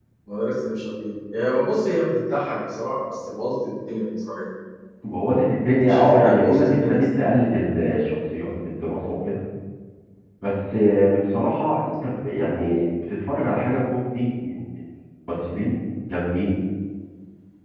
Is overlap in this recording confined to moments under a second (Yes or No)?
No